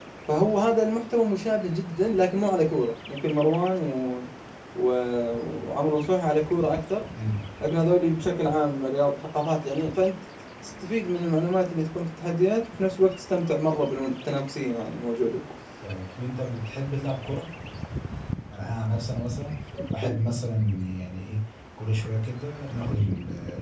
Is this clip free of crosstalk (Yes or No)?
Yes